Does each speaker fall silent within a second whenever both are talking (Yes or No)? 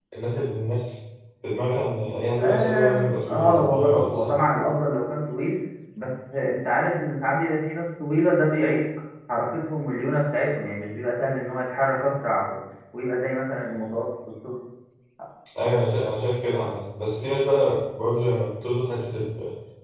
No